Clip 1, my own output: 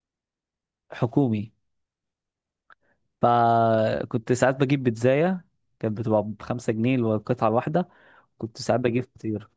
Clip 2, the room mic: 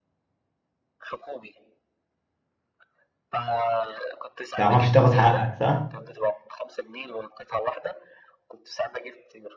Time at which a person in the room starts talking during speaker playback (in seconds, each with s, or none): 4.6 s